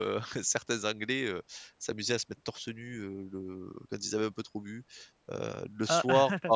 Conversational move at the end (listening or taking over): listening